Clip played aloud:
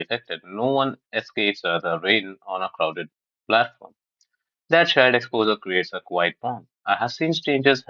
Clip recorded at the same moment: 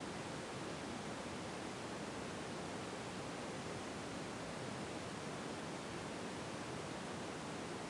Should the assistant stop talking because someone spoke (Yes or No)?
No